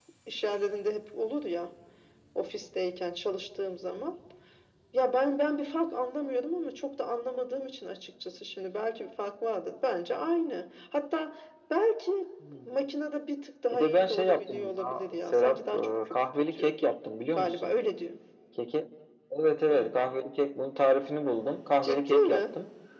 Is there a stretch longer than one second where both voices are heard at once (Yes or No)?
Yes